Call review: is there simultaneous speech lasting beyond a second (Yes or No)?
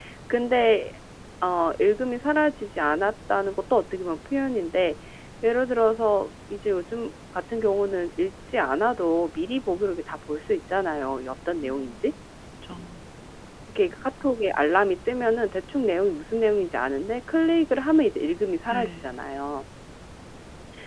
No